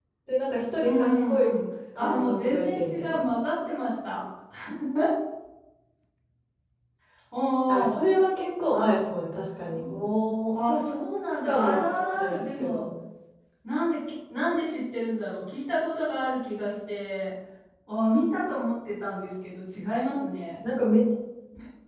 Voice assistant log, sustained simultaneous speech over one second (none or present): present